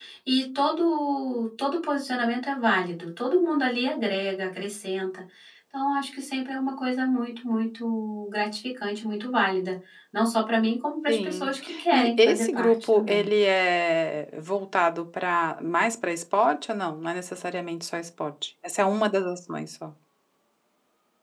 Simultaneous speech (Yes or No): Yes